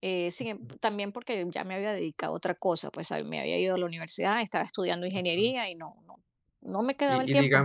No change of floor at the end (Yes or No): No